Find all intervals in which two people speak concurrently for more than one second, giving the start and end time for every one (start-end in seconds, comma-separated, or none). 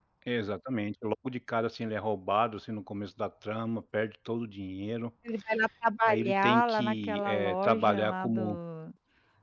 6.1-8.6